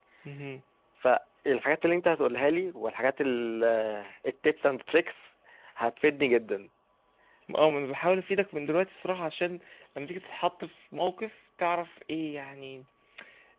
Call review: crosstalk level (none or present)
none